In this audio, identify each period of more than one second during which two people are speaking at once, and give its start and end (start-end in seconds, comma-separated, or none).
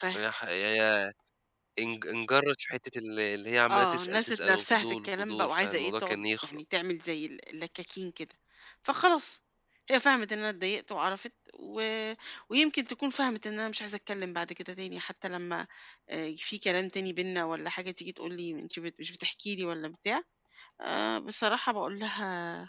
3.7-6.6